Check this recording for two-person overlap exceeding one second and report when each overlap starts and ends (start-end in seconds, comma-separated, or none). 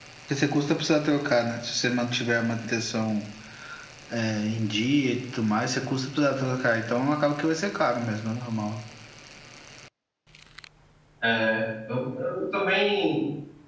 none